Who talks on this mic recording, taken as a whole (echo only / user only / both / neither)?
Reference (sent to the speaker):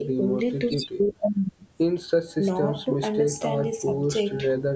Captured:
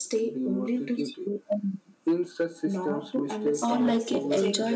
both